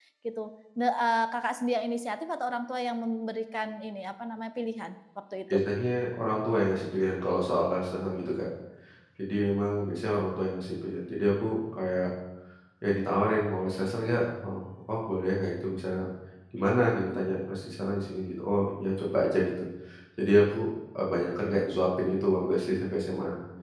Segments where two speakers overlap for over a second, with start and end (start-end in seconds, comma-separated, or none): none